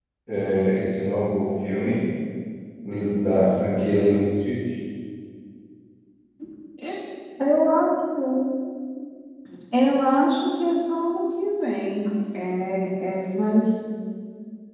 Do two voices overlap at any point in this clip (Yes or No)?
No